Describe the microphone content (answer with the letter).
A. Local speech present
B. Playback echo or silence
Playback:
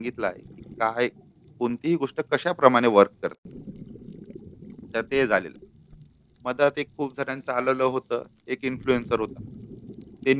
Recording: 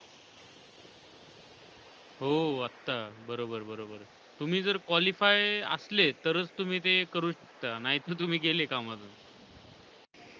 A